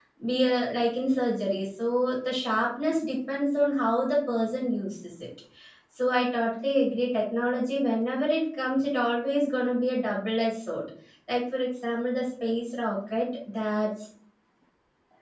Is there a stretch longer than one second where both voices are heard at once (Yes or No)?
No